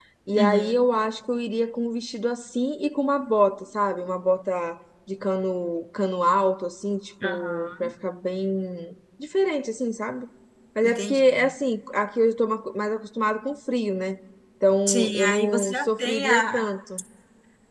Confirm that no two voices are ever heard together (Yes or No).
No